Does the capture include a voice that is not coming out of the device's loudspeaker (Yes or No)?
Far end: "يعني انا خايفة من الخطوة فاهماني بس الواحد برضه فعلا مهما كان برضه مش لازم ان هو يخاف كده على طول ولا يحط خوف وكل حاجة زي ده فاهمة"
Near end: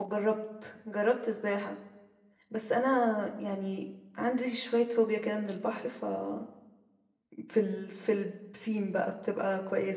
Yes